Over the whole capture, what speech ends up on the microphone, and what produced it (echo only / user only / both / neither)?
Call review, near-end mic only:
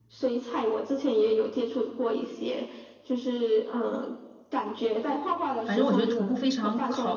both